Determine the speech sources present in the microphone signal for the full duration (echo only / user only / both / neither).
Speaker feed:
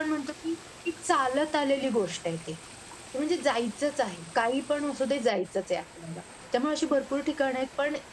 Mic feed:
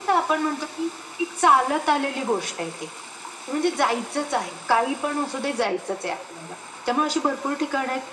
echo only